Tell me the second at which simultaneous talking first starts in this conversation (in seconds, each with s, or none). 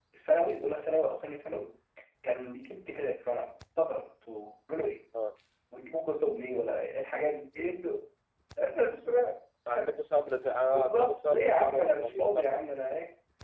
10.6 s